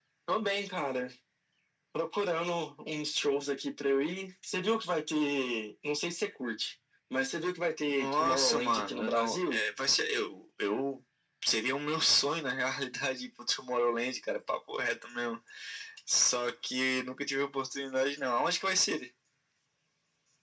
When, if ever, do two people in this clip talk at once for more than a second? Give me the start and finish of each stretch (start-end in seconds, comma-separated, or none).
7.9-9.6